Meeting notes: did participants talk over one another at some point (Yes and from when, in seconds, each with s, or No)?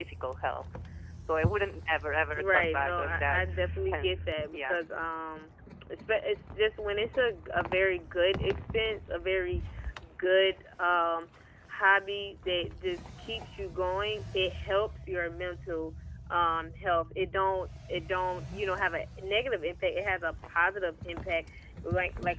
Yes, from 2.4 s